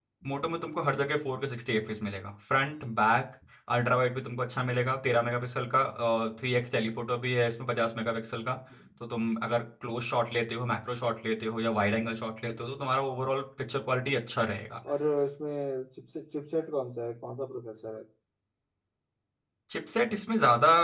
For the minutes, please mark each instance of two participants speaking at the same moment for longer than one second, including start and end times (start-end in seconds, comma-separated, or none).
none